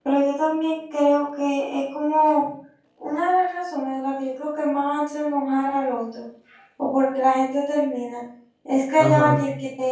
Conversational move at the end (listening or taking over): listening